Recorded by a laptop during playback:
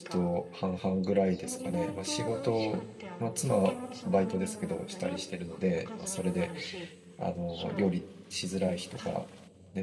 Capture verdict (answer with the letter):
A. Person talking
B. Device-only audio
A